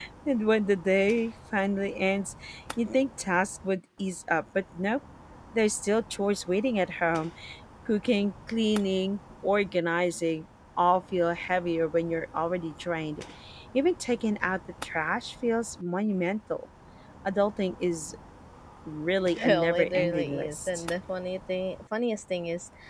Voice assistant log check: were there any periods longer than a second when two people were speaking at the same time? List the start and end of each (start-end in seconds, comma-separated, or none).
19.4-20.7